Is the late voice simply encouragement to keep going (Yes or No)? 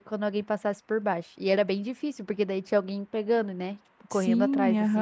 No